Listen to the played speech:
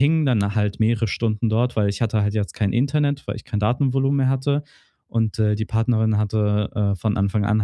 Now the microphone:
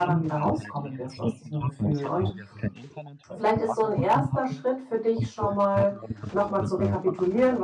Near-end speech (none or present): present